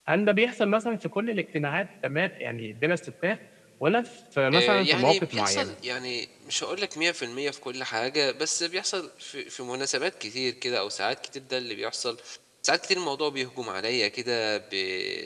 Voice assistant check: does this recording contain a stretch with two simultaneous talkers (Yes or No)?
Yes